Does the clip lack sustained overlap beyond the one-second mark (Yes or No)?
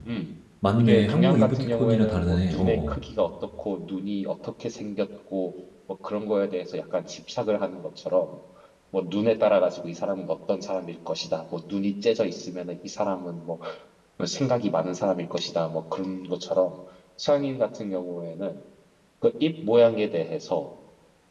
No